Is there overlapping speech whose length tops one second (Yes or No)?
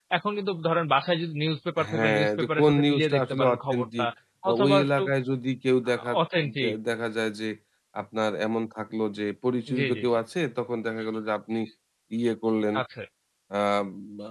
Yes